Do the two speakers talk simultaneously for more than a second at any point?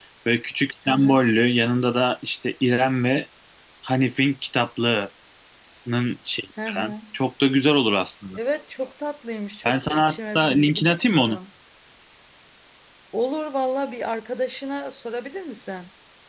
Yes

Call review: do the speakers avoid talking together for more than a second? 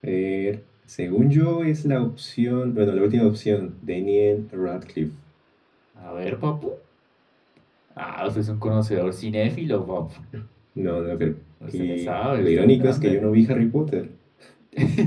No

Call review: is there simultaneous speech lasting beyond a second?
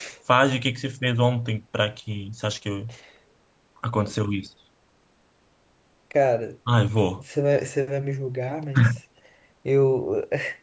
No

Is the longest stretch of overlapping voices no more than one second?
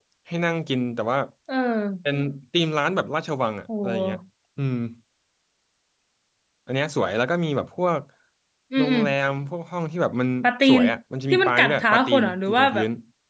No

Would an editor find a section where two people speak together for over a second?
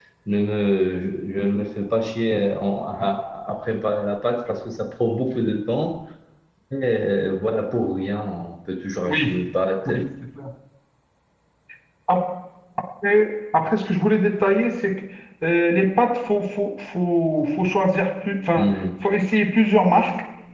No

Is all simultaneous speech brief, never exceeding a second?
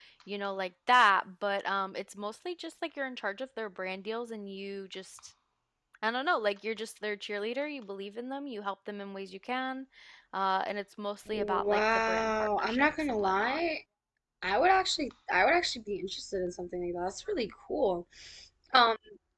No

